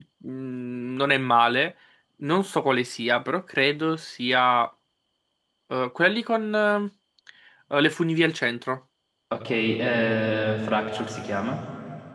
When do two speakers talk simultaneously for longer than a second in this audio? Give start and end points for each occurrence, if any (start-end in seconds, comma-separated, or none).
none